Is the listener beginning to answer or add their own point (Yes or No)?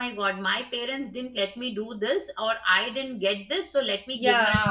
Yes